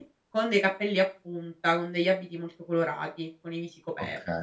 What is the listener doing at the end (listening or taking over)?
taking over